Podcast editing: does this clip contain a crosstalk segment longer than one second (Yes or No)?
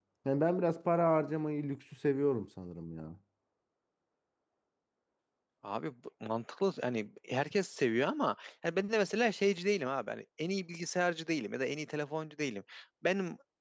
No